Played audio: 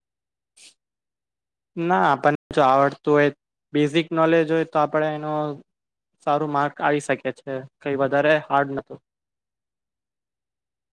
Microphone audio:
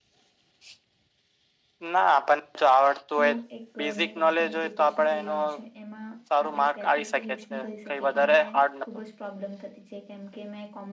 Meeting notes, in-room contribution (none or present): present